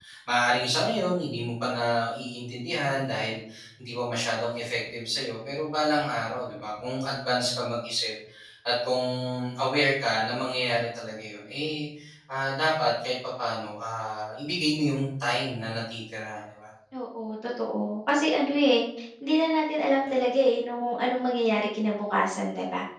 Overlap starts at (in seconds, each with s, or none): none